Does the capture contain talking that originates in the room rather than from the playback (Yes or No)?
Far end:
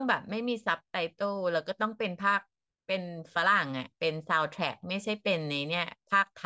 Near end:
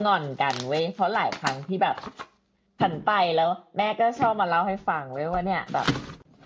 Yes